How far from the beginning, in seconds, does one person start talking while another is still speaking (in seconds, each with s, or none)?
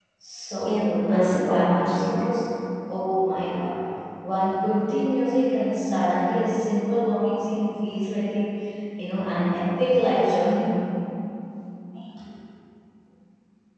0.7 s